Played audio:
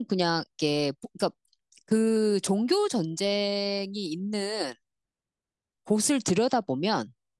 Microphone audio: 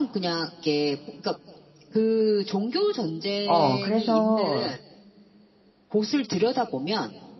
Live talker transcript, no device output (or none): 어, 그래서